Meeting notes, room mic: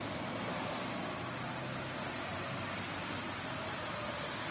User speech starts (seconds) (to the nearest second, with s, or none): none